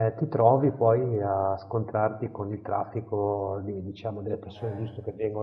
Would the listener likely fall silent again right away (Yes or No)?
Yes